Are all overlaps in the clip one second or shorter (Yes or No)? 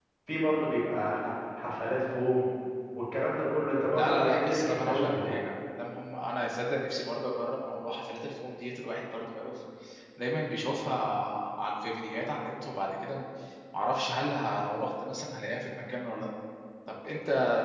No